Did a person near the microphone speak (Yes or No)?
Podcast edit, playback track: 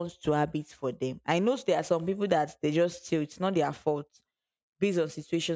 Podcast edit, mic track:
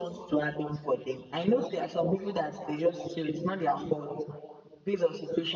No